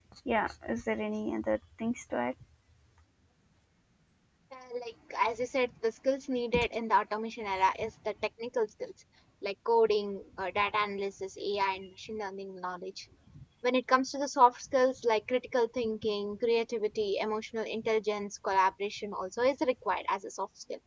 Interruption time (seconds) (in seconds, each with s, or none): none